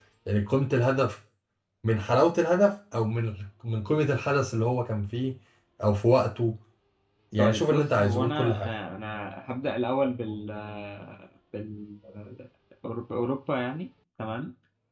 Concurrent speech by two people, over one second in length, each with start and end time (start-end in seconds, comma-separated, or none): 7.4-8.7